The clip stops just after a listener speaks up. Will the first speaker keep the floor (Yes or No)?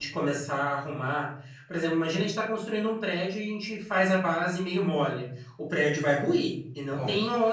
Yes